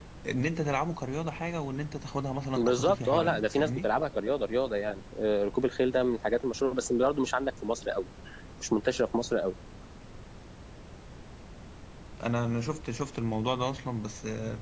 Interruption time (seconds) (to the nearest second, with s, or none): 3 s